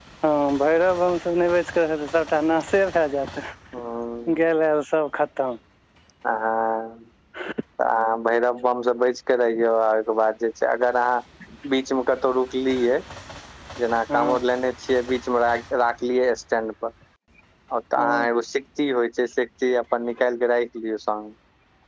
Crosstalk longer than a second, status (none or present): none